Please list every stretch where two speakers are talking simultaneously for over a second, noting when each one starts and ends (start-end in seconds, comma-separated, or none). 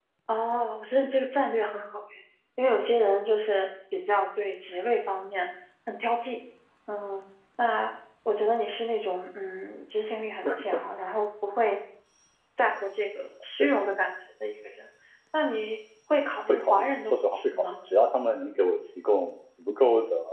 16.5-17.7